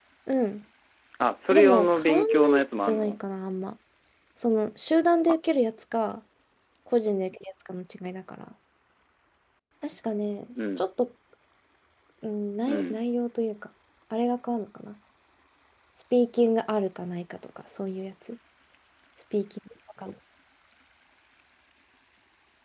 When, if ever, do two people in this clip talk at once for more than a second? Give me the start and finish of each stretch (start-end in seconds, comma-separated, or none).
1.5-3.2